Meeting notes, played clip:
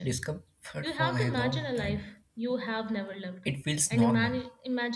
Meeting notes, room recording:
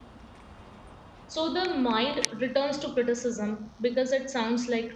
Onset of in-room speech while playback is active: 1.3 s

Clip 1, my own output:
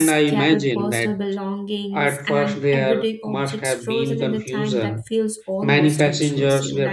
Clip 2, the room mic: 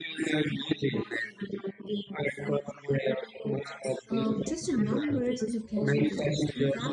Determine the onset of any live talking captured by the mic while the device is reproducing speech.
4.1 s

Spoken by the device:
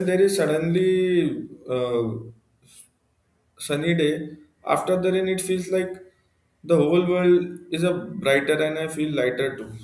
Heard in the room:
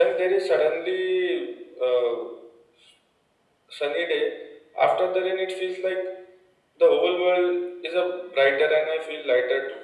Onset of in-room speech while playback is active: none

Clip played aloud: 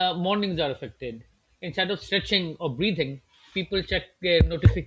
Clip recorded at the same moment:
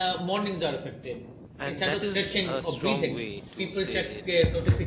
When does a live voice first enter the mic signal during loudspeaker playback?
1.6 s

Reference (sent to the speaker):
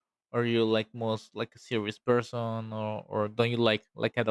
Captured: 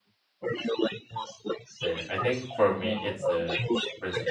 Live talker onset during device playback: 1.8 s

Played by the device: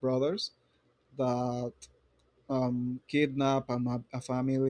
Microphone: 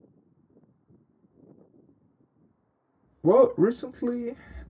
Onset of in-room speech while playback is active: 3.2 s

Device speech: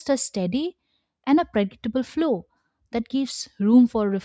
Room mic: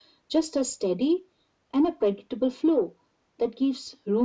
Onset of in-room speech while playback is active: none

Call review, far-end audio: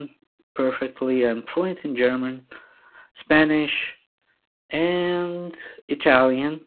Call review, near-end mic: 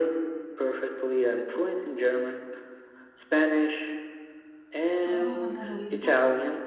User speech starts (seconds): 5.0 s

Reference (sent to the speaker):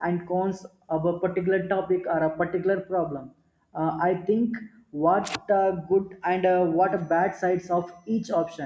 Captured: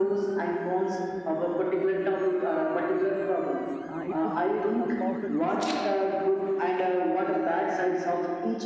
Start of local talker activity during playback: 3.9 s

